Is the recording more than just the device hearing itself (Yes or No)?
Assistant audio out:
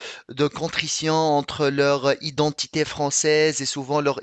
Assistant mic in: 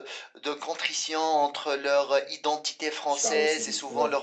Yes